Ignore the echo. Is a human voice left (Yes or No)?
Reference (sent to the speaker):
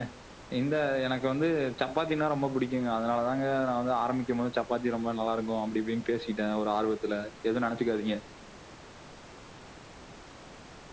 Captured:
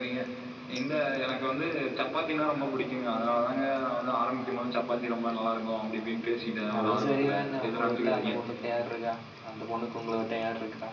Yes